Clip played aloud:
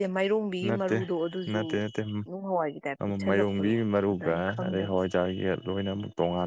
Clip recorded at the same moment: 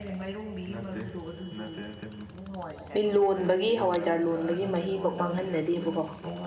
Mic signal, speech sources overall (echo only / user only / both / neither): both